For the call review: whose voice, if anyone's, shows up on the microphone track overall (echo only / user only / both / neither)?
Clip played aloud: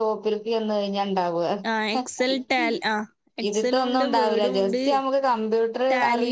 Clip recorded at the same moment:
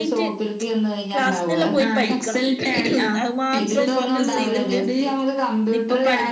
both